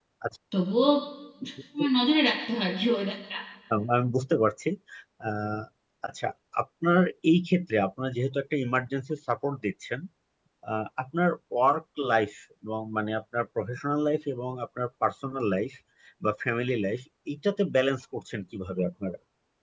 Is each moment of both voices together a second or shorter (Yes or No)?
Yes